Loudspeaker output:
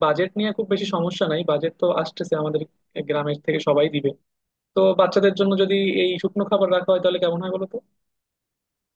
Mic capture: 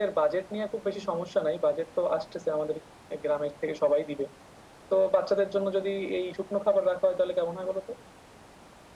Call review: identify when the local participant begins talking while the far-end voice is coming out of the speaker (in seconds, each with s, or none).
none